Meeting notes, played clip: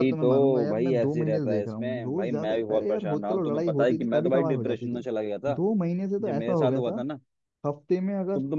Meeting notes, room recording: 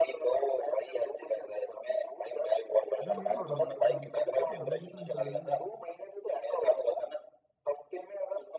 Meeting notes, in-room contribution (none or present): present